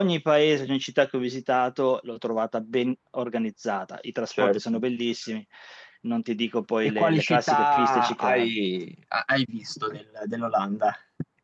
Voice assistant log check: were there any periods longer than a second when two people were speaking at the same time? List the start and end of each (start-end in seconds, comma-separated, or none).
6.8-8.5